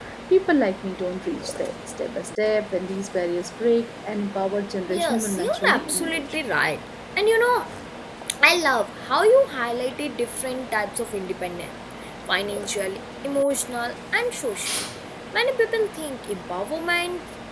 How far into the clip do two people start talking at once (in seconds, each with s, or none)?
4.9 s